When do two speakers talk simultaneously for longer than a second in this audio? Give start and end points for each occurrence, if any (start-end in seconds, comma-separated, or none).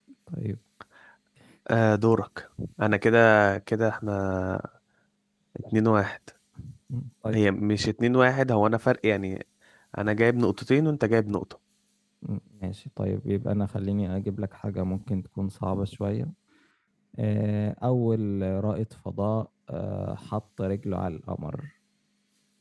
none